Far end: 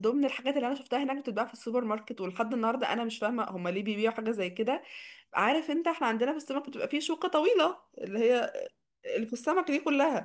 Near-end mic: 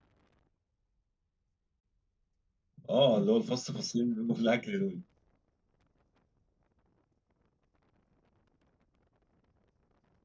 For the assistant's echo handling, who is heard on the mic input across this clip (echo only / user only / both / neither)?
user only